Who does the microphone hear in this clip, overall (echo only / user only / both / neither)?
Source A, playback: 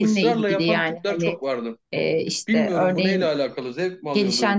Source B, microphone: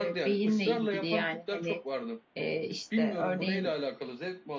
echo only